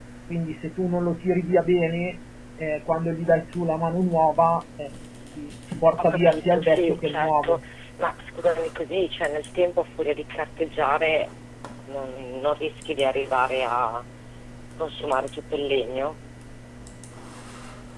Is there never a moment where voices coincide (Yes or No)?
No